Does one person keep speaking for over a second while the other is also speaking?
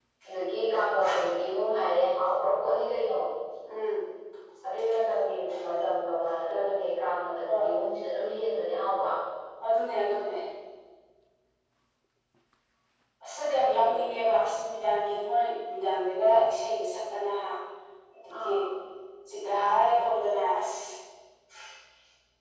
No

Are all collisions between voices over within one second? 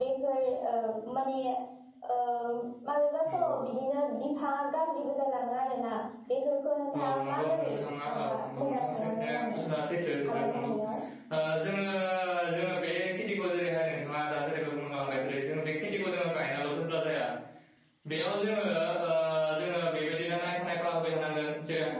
No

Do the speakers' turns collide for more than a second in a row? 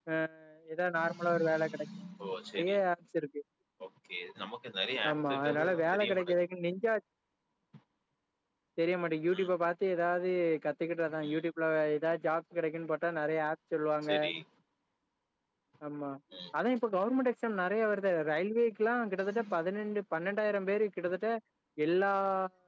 Yes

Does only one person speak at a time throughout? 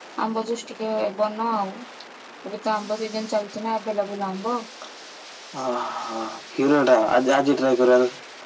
Yes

